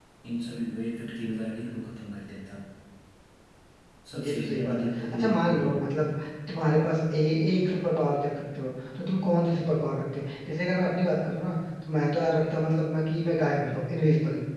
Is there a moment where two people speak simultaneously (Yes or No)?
Yes